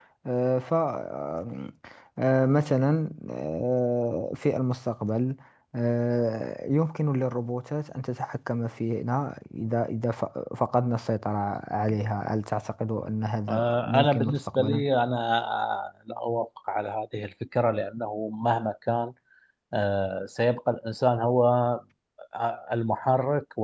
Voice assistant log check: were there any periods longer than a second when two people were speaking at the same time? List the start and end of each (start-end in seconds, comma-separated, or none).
13.5-14.8